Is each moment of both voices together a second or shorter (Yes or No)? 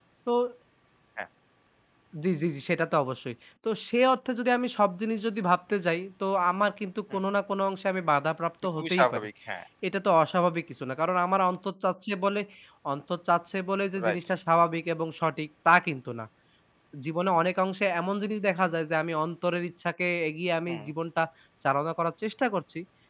Yes